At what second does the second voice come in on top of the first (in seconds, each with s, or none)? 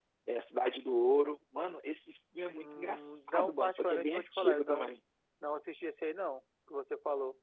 2.5 s